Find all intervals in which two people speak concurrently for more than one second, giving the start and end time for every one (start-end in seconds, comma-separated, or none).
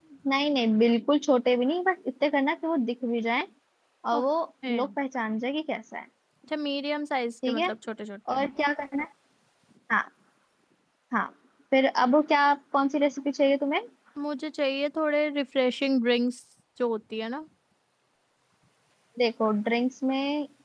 none